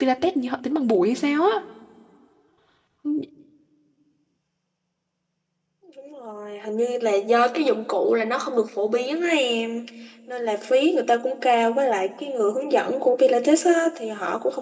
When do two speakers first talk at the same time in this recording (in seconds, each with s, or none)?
none